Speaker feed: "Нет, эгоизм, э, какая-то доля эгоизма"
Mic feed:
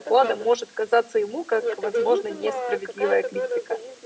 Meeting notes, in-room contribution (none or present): present